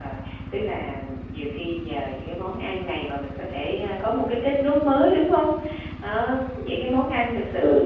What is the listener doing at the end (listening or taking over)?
listening